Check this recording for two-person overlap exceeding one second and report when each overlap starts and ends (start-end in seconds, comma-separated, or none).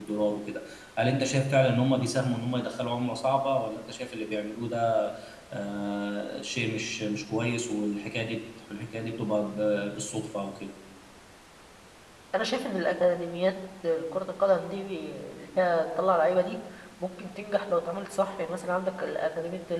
none